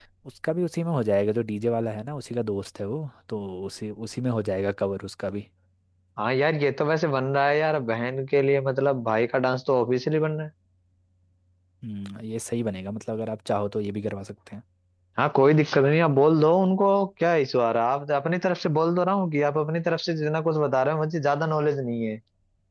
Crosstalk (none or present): none